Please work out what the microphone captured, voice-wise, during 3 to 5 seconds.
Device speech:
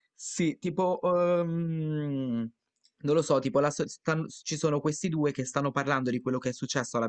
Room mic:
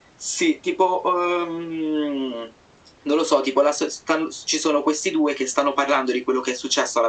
echo only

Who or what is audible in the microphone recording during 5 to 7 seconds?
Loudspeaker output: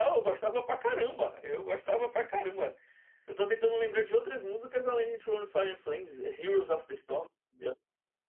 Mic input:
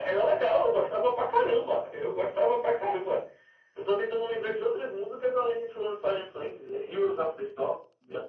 echo only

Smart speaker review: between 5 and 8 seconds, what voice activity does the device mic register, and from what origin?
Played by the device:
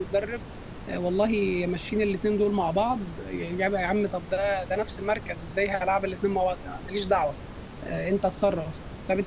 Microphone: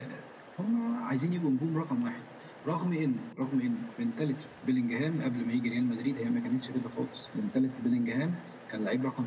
user only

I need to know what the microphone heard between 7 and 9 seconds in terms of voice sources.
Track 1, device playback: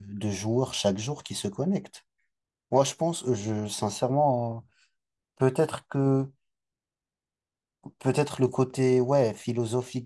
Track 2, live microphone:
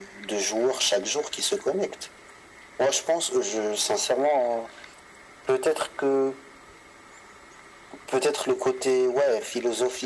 echo only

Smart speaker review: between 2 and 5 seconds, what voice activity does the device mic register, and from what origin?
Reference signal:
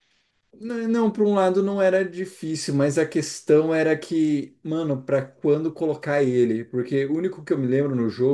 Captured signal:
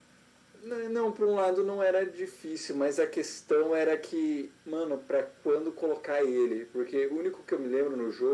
echo only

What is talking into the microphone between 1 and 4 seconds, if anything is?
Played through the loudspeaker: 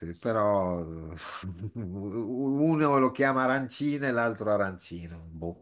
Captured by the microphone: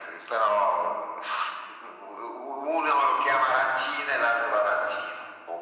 echo only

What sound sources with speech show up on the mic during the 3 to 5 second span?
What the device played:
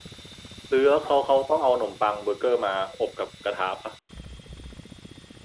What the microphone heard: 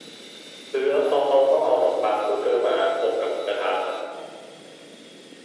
echo only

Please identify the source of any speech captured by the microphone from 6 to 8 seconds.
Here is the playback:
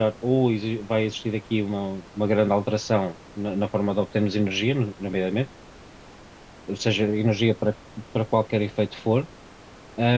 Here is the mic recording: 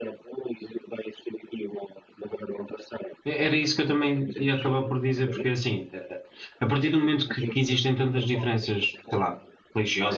both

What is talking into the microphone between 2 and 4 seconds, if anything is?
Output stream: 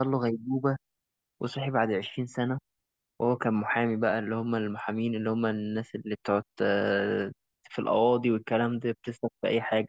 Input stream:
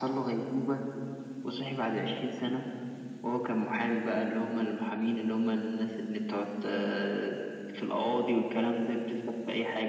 echo only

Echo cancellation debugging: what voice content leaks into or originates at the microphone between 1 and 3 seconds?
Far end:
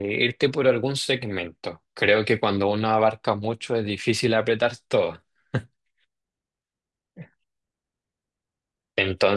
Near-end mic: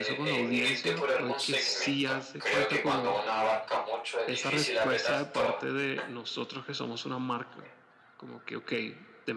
both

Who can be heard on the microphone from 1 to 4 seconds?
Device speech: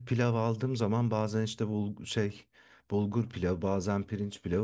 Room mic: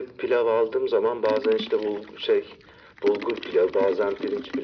echo only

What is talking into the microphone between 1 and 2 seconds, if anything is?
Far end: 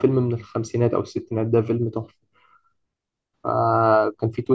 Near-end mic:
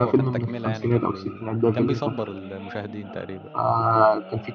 both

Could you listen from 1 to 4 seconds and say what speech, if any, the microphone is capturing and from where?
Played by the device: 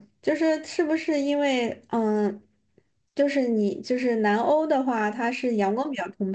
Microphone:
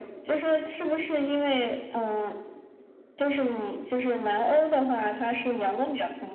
echo only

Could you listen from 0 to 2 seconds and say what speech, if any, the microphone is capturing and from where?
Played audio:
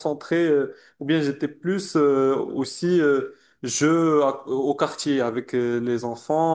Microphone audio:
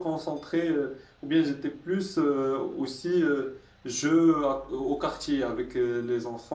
echo only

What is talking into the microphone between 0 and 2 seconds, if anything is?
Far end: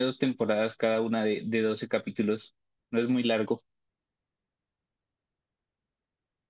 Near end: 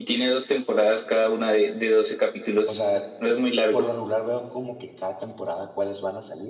echo only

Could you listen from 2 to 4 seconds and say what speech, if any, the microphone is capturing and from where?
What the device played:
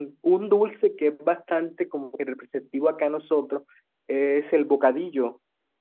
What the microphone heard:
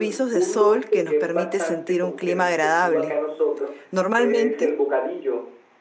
both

